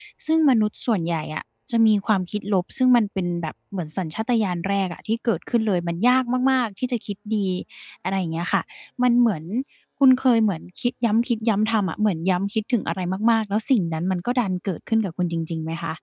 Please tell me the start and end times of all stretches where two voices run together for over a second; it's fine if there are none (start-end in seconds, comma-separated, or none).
none